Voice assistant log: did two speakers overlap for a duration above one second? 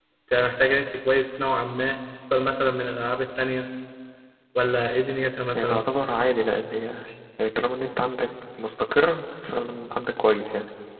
No

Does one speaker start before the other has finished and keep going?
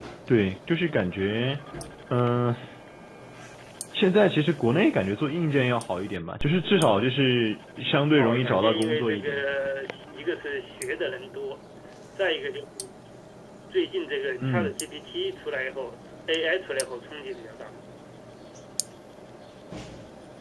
Yes, from 8.2 s

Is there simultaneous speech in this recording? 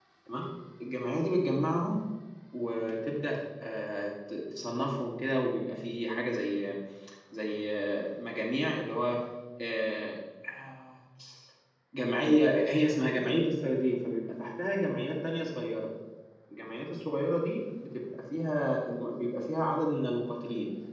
No

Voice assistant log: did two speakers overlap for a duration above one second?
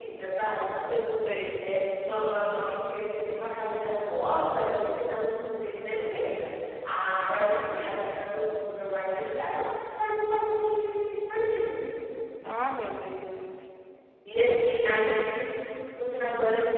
No

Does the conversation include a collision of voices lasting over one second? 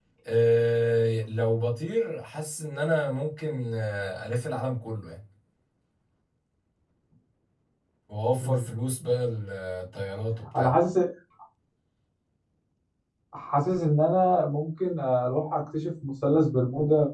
No

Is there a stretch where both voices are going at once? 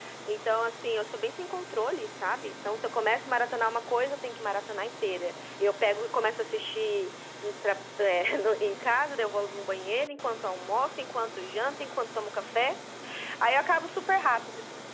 No

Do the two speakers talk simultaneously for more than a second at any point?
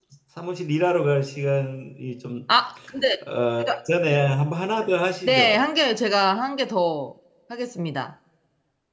No

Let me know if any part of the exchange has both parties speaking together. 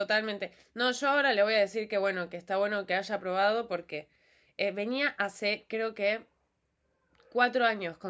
No

